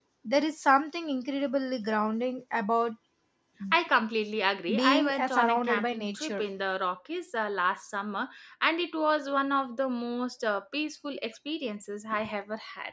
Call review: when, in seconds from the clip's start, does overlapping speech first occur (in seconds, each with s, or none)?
4.7 s